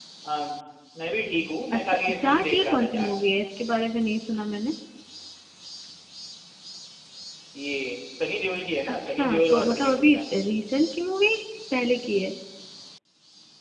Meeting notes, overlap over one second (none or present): present